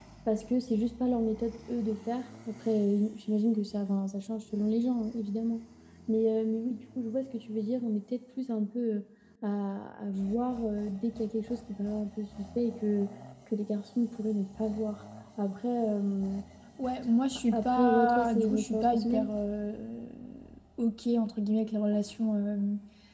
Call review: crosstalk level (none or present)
present